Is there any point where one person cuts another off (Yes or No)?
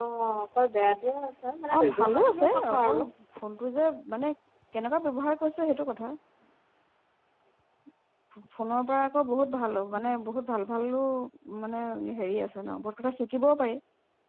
Yes